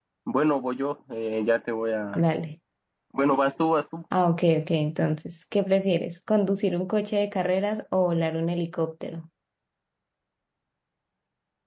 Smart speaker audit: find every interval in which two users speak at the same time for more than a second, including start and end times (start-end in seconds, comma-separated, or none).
none